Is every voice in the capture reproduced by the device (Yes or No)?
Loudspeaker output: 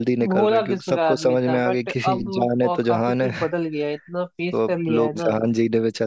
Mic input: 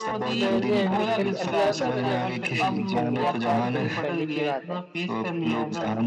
No